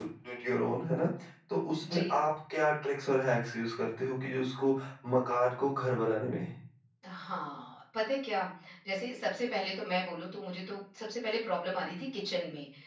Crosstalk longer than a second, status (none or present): none